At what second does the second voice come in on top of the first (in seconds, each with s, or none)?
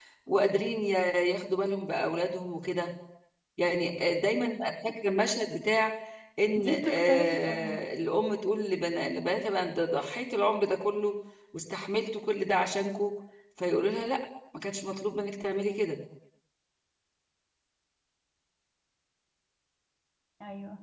6.5 s